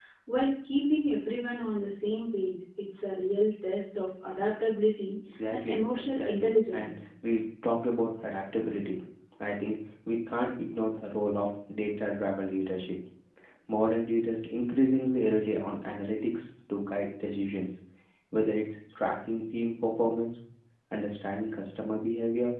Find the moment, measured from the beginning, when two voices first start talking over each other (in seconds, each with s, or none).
5.5 s